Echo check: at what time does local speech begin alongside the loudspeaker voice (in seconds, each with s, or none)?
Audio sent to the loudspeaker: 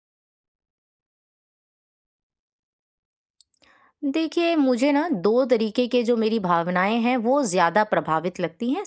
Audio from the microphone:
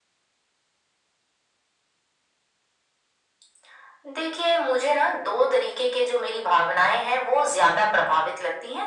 none